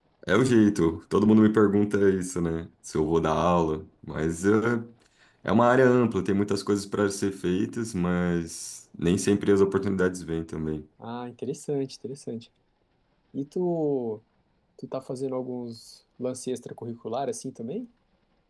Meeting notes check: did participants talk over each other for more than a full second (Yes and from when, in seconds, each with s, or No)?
No